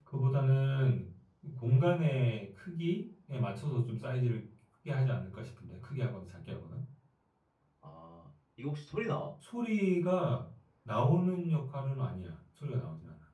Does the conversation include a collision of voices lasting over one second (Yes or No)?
No